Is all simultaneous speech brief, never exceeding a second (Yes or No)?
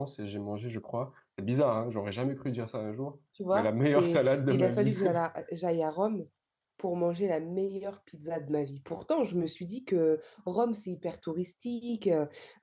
No